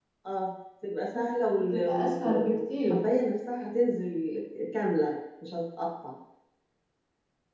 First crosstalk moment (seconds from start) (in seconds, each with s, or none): 1.7 s